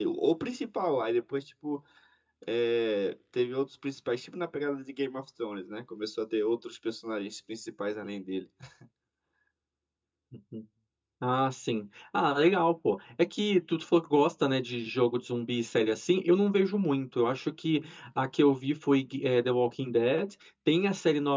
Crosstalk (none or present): none